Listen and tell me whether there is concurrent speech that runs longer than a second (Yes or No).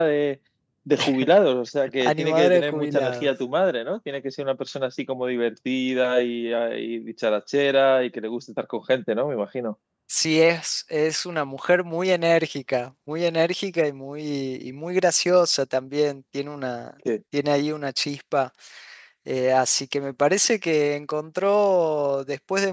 Yes